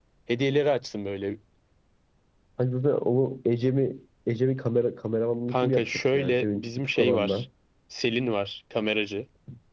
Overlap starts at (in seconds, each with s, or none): 5.5 s